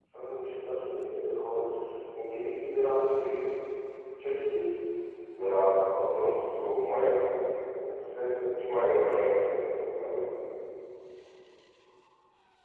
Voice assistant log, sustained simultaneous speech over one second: none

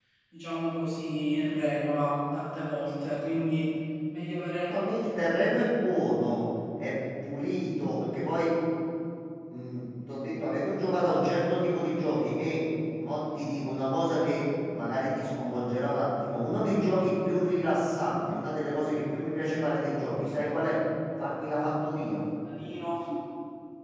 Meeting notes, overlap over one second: none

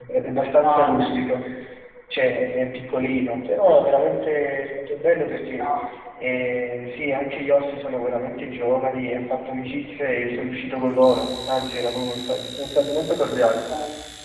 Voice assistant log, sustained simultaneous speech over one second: none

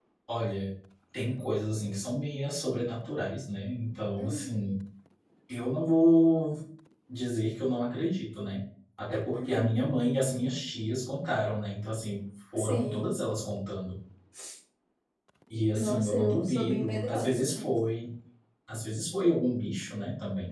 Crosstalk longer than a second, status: present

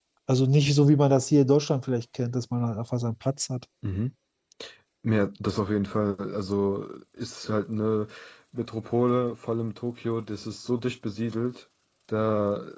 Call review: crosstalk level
none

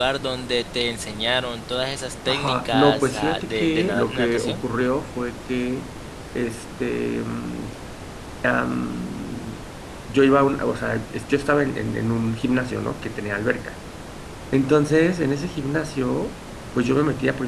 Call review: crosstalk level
present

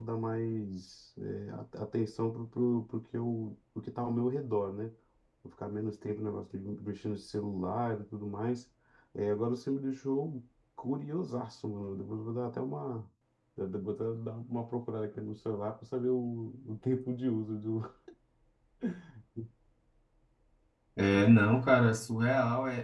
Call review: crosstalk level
none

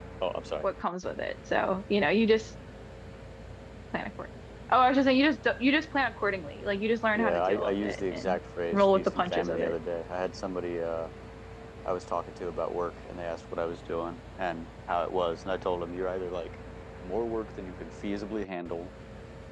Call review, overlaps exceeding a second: present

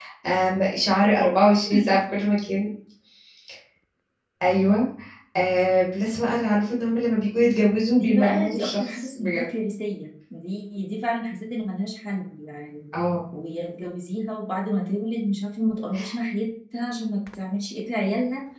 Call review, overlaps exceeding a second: present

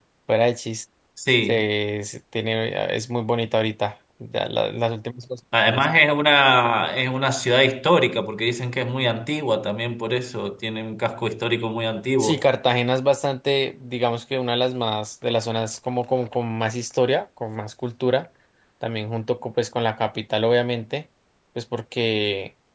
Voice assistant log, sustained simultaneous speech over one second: none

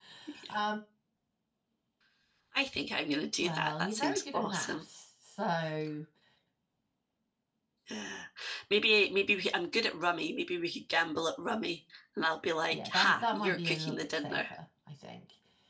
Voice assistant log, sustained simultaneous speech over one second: present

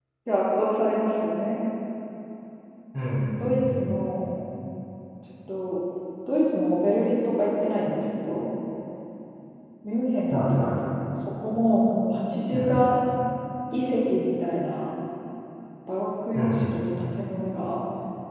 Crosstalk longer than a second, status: none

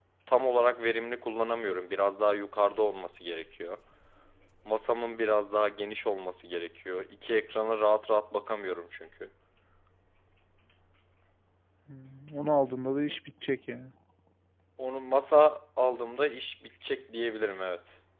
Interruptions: none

